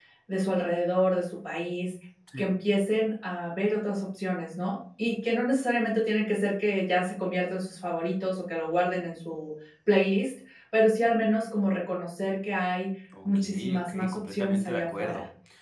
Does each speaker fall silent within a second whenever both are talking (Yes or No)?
No